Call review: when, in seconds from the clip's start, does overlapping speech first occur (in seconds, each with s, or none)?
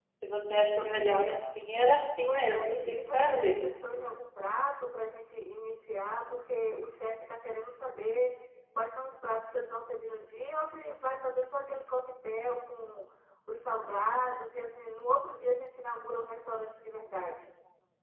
2.2 s